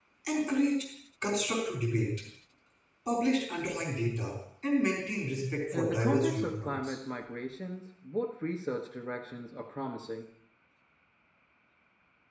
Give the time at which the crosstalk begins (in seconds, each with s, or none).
5.7 s